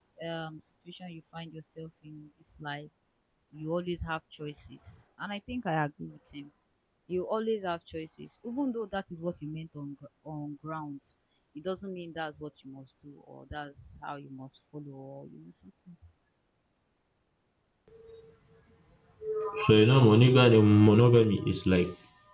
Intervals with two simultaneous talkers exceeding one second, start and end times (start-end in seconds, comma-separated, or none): none